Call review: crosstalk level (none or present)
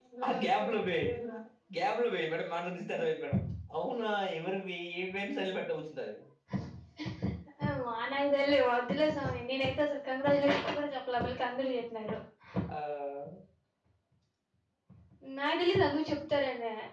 none